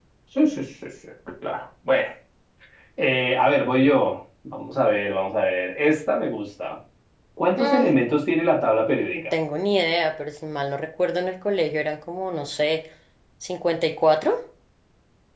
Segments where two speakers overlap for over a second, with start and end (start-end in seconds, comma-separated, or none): none